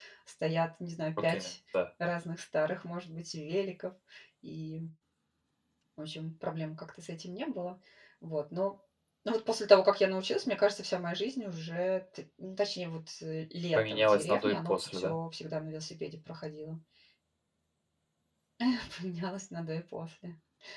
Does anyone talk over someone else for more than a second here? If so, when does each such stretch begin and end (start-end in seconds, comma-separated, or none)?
13.8-15.1